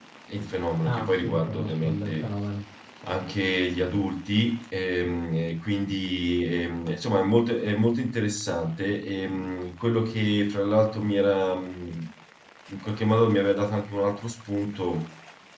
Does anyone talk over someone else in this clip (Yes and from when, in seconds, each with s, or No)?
Yes, from 0.8 s